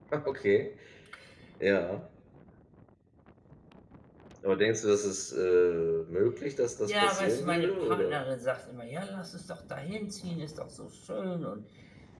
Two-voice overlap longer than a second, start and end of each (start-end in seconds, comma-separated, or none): 6.9-8.2